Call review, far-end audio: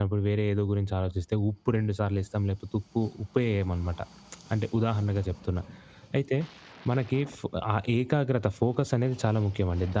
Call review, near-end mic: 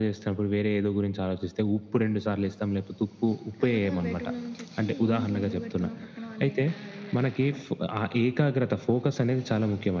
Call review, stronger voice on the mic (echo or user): echo